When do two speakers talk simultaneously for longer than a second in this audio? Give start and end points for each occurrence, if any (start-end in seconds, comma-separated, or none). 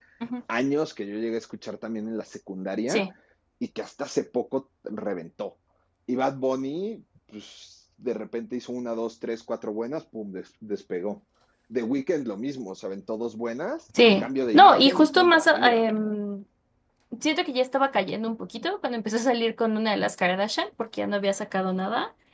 14.2-16.2